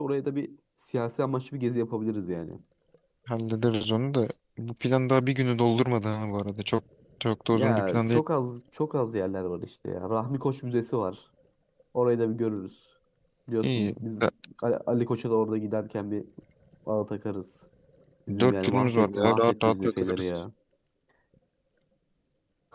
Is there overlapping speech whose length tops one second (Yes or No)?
Yes